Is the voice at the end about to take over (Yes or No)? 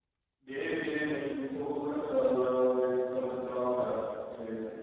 No